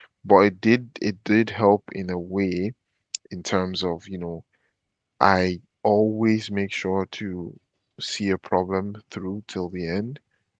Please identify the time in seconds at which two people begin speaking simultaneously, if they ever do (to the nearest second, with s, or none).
none